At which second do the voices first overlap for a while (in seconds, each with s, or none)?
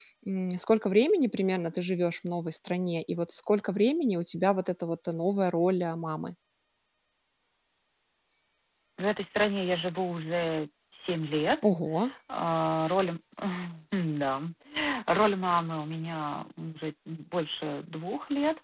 none